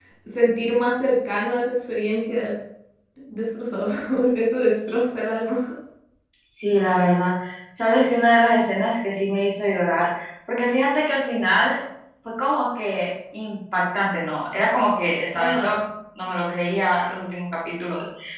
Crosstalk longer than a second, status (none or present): none